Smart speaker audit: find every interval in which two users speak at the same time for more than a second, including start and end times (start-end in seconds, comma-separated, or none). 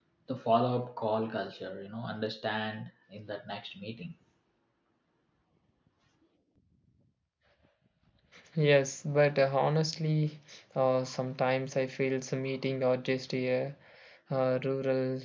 none